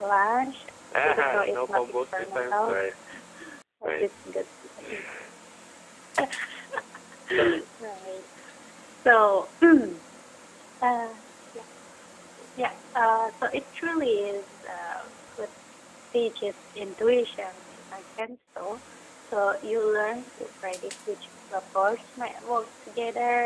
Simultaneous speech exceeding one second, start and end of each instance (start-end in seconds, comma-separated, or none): 1.0-2.8